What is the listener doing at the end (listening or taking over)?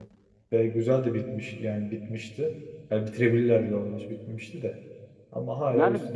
taking over